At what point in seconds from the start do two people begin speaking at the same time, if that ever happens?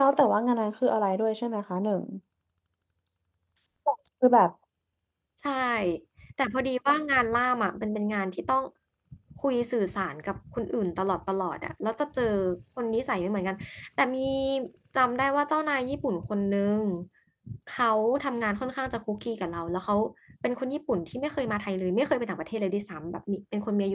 none

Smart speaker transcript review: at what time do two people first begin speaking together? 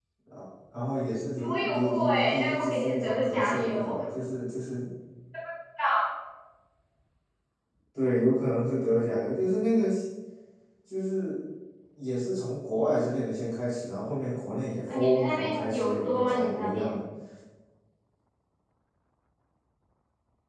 1.4 s

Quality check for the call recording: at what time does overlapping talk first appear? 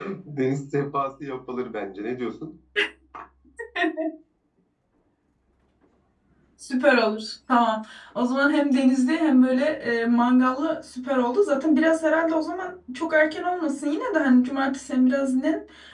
none

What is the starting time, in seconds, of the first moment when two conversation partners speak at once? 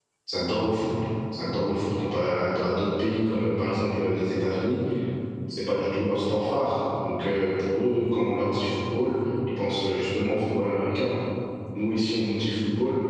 none

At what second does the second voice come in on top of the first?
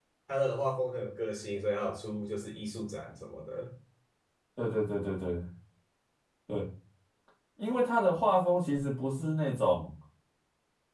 none

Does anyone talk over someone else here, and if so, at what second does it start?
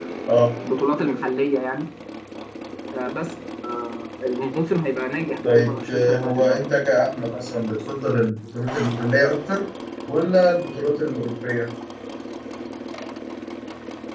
5.4 s

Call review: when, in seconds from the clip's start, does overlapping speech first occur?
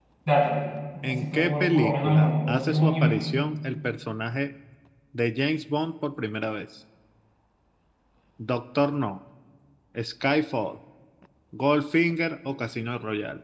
1.0 s

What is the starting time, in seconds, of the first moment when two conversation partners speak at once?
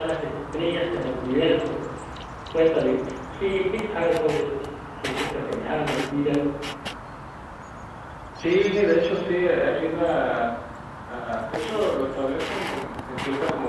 none

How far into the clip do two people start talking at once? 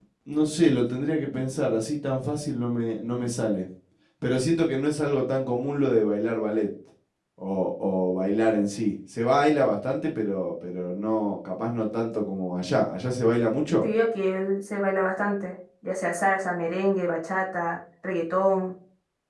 none

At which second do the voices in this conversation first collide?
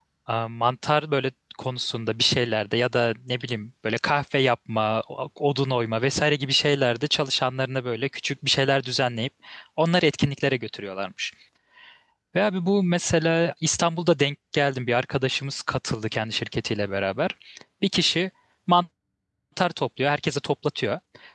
none

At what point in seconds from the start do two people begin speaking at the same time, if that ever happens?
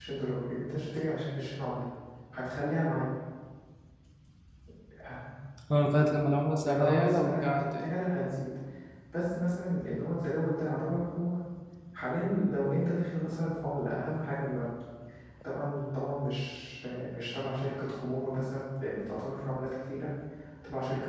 6.6 s

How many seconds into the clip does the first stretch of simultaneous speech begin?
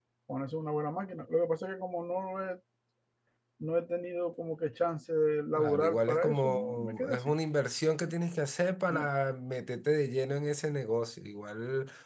5.5 s

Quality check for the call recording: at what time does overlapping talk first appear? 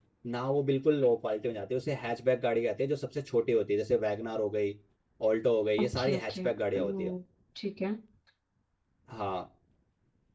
5.8 s

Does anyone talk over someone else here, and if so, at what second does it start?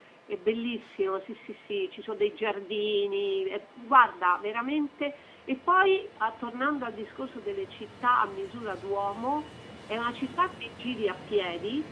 none

